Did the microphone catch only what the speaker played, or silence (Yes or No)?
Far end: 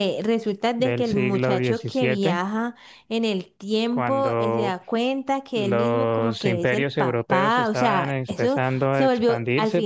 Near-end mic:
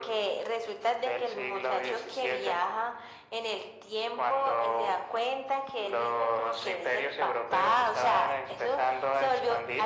Yes